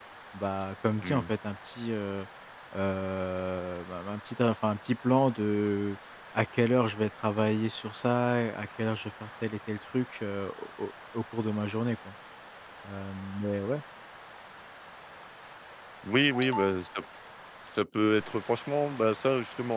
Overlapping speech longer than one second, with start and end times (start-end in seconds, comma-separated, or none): none